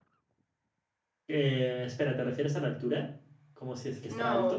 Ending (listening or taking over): taking over